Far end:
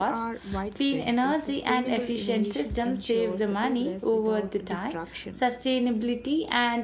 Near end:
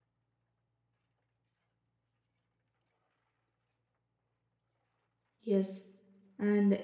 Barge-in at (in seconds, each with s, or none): 5.4 s